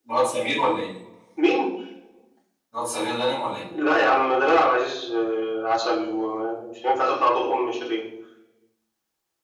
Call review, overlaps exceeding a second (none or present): none